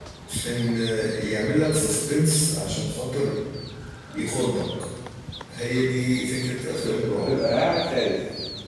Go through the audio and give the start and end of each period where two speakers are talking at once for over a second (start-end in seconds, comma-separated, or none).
none